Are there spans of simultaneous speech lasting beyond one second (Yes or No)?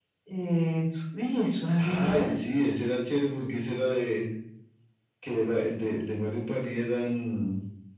No